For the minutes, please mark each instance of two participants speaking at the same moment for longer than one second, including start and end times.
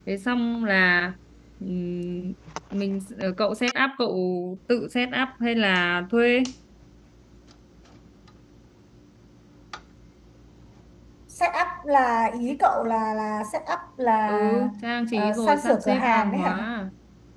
15.1-16.6

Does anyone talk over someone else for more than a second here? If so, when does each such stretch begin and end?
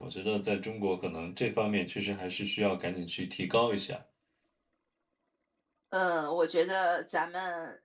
none

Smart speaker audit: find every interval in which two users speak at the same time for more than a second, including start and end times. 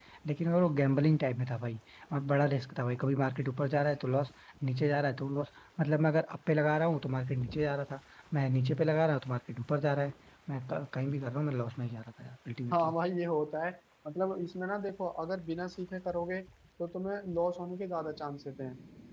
none

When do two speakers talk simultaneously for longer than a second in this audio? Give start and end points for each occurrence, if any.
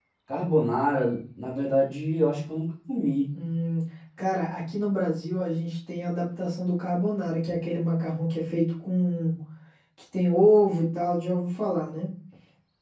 none

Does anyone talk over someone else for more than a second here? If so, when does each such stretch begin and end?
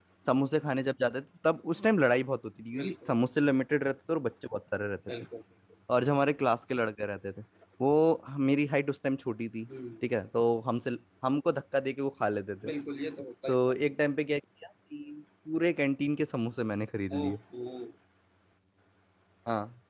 none

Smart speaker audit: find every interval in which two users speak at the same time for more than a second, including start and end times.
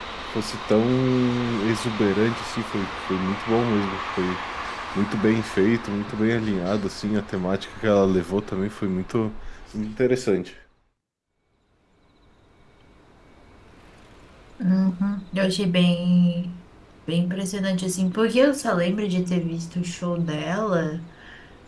none

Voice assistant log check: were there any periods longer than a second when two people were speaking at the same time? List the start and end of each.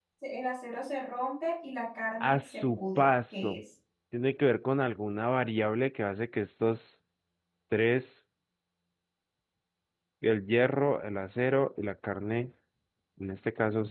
2.2-3.6

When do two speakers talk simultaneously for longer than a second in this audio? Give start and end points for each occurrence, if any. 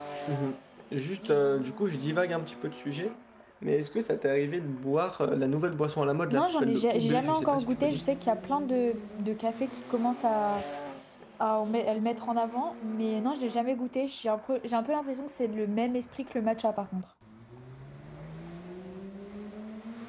6.3-8.0

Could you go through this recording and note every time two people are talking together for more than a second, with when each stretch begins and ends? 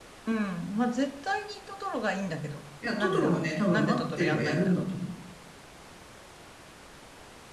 3.0-4.8

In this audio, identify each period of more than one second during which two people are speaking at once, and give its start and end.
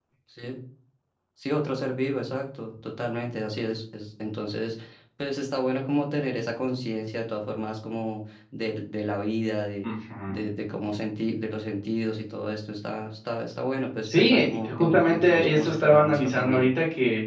14.1-16.7

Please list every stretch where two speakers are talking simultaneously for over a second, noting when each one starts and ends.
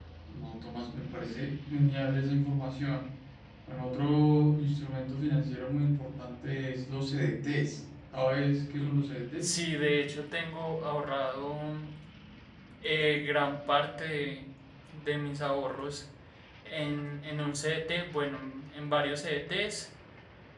none

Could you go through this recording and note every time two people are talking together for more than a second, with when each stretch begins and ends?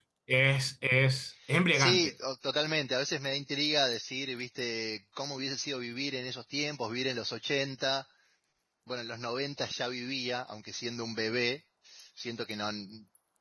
none

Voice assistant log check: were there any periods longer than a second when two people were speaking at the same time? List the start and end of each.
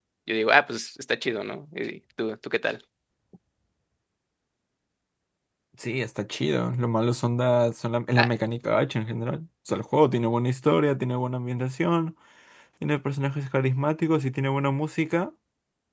none

